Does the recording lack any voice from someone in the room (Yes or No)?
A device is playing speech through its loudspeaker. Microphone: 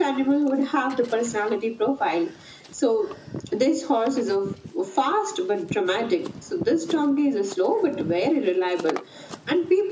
Yes